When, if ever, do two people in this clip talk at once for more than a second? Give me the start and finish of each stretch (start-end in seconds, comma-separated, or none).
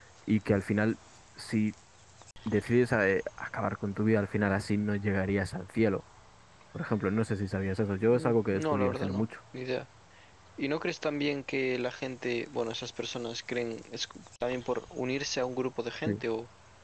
8.0-9.2